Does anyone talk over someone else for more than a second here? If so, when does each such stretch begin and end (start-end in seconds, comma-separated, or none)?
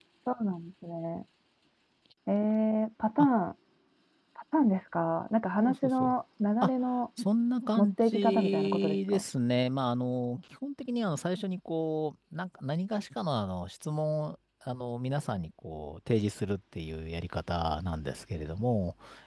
7.8-9.2